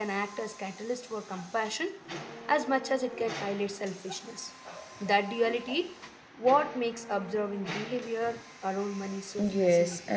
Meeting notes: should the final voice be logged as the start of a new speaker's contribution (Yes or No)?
Yes